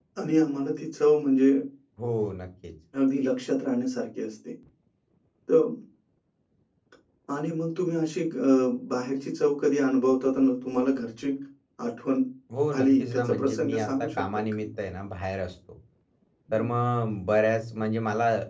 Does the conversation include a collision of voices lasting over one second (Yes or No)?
Yes